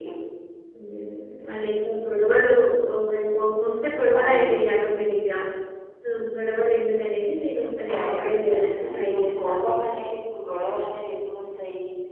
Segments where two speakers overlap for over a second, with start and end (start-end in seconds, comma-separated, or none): 7.9-10.1